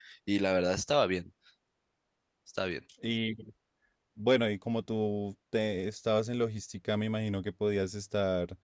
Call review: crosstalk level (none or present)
none